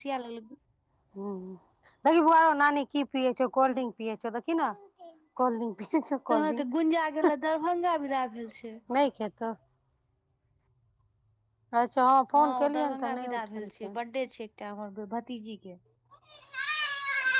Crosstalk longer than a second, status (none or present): present